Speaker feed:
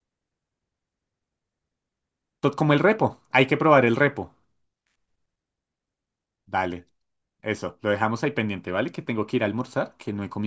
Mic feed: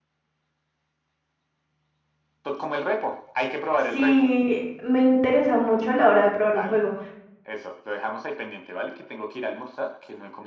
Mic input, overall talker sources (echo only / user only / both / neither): both